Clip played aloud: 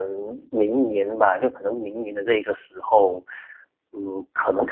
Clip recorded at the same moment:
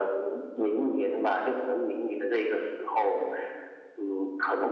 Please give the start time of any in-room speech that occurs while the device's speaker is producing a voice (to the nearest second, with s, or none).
none